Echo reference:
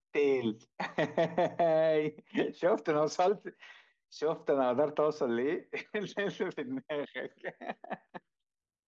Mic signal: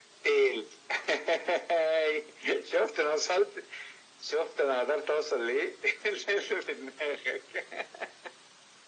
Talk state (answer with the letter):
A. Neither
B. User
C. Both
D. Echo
D